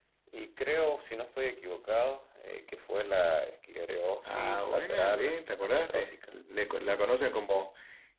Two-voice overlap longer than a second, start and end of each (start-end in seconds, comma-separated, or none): 4.2-6.4